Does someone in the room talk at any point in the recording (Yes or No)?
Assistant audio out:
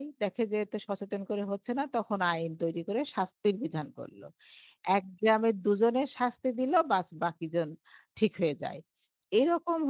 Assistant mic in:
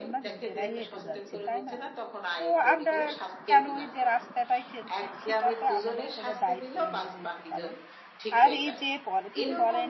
Yes